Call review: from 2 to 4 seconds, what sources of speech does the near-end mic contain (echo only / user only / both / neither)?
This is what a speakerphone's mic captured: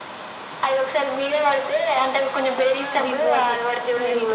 both